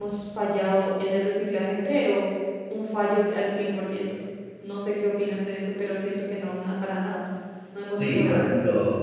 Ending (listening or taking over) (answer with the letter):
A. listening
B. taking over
B